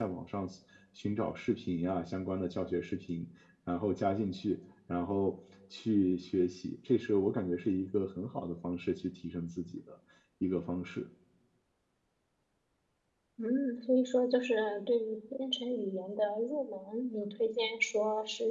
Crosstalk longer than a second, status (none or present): none